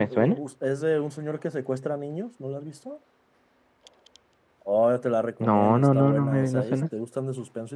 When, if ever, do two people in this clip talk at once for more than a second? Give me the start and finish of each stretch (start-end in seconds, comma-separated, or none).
5.4-6.8